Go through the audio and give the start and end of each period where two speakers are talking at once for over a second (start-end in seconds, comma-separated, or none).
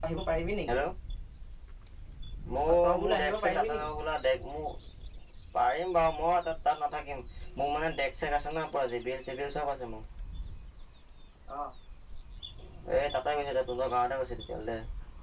2.7-3.9